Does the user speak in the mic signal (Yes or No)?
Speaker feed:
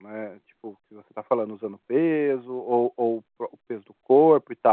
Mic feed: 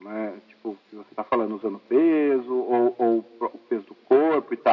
No